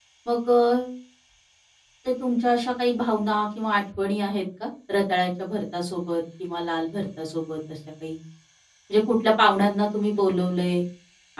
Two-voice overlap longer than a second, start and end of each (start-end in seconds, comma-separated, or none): none